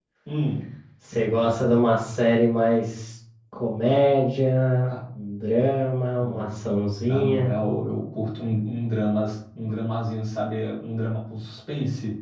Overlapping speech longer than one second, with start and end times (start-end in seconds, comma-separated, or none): none